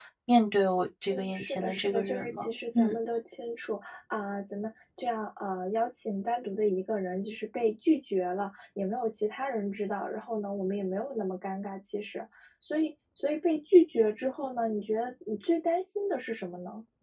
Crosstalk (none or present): present